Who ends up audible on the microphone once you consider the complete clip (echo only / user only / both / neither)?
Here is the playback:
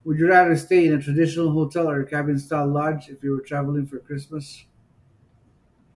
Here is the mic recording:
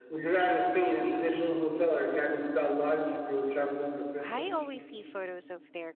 both